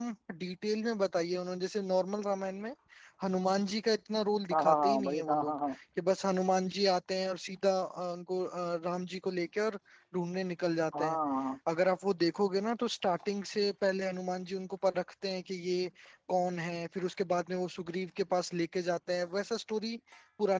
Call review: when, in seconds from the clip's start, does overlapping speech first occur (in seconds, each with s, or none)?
4.5 s